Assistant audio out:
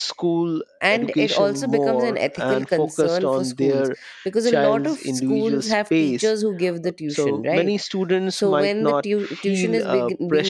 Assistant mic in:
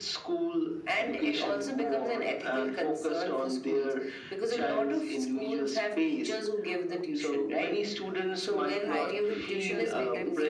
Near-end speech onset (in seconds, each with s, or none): 8.2 s